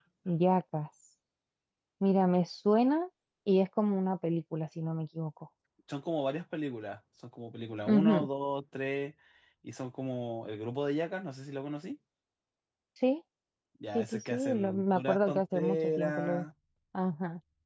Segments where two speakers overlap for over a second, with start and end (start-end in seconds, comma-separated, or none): 13.9-16.4